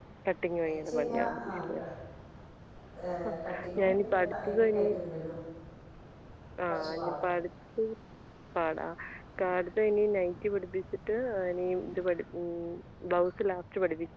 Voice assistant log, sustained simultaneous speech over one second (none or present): present